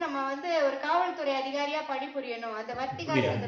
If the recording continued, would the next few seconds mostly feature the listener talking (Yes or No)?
Yes